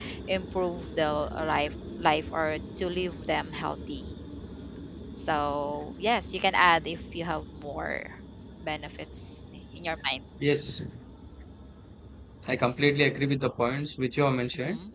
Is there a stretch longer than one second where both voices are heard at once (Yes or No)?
No